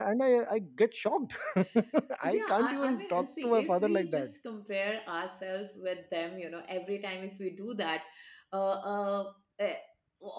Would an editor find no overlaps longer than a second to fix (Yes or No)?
No